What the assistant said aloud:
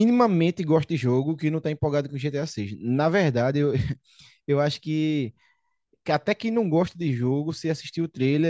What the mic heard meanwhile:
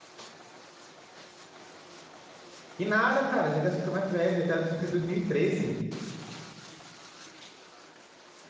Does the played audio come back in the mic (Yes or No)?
No